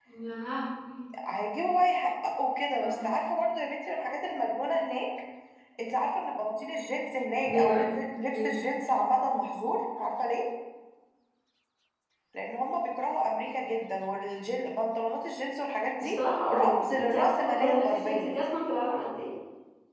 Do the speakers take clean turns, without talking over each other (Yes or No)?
No